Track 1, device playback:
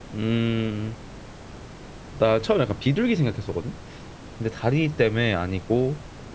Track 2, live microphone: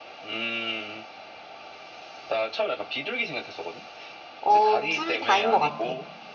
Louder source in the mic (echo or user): user